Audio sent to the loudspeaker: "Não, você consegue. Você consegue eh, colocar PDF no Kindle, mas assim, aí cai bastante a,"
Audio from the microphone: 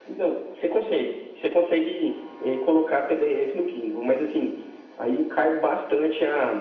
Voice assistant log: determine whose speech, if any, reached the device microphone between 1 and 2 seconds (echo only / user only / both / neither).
echo only